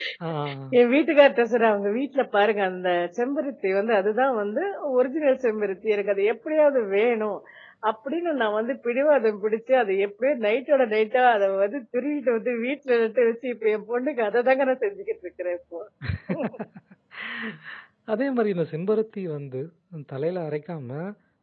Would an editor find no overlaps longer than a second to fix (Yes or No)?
Yes